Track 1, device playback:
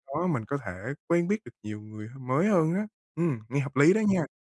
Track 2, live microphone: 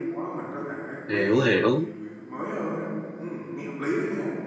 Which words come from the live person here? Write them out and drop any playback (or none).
hiểu, hiểu.